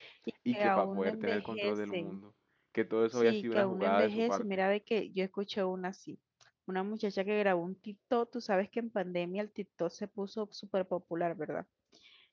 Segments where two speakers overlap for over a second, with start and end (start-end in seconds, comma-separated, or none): 0.5-2.2, 3.1-4.4